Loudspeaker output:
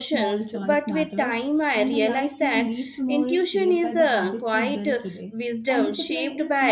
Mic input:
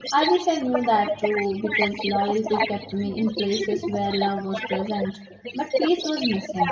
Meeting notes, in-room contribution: present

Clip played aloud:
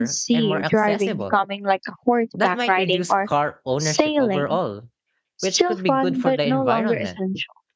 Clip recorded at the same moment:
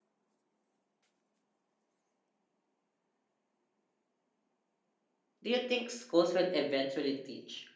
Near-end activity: present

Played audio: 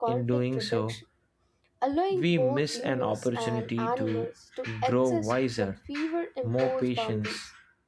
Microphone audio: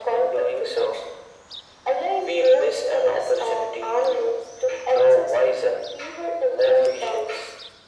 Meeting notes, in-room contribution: none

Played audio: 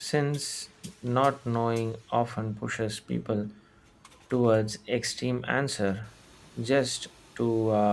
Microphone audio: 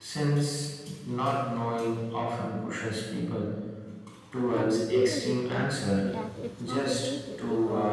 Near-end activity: present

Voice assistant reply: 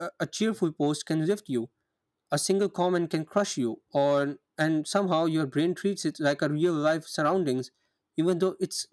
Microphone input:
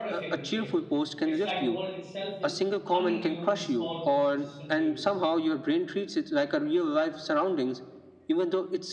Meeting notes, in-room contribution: present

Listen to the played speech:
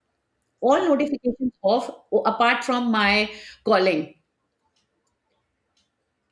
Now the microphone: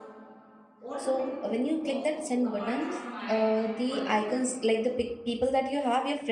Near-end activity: present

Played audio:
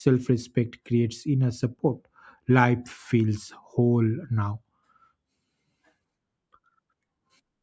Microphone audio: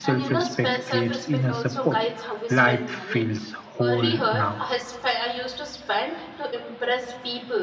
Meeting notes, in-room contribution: present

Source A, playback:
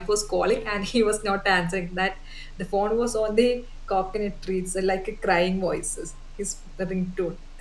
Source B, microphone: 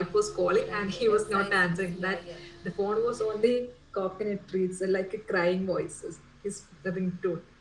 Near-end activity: present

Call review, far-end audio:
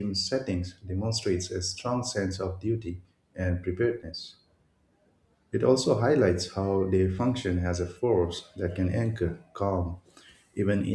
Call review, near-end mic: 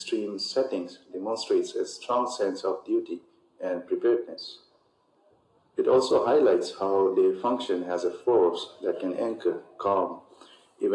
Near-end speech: none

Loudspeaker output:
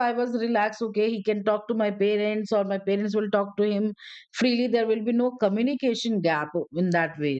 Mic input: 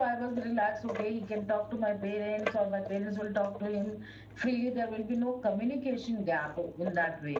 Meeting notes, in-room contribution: none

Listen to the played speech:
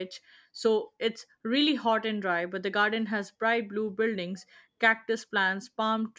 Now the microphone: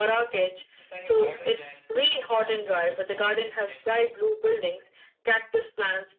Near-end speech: present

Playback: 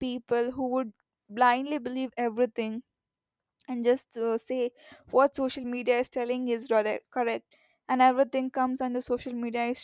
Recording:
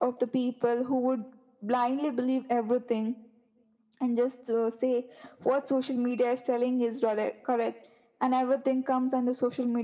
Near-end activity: none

